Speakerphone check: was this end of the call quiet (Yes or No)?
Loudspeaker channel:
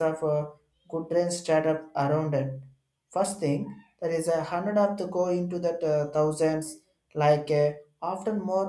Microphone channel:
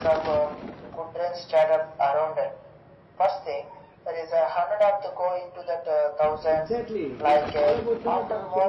No